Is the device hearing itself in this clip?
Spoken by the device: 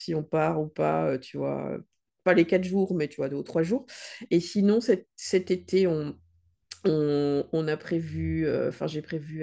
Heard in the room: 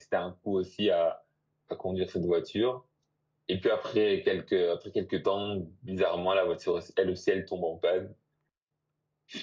No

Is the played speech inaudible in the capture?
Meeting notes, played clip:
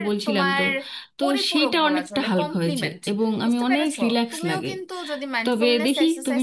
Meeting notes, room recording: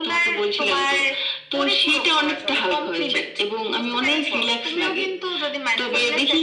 No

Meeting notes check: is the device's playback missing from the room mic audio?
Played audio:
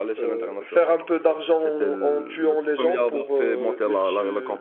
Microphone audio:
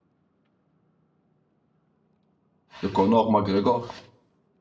Yes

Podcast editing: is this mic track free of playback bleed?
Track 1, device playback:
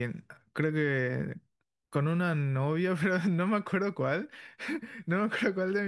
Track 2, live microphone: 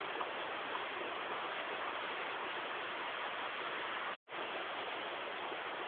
Yes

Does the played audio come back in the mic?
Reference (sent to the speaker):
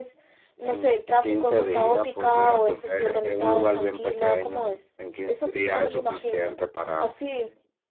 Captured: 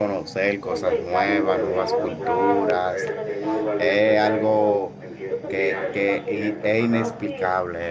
Yes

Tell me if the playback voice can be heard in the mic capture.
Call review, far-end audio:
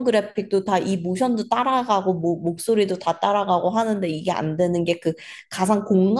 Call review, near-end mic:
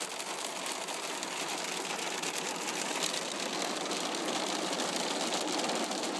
No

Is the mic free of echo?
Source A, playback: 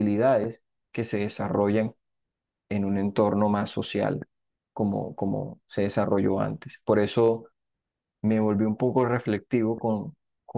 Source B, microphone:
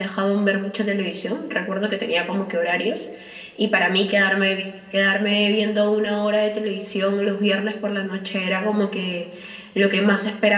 Yes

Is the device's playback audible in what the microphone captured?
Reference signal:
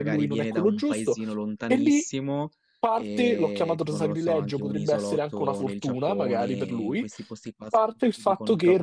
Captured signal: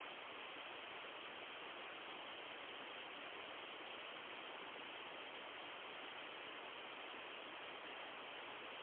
No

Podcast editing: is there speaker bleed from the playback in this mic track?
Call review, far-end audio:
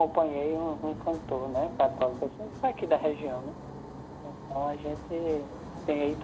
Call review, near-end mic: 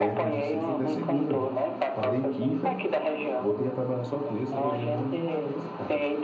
Yes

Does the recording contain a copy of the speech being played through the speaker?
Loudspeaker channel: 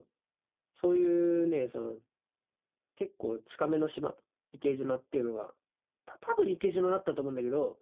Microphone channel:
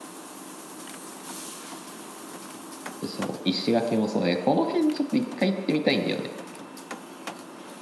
No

